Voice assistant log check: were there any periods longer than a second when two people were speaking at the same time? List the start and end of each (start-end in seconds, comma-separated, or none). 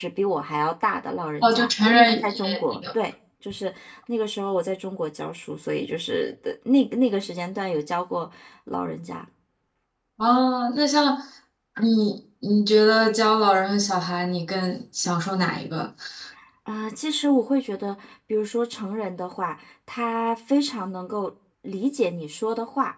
1.4-2.8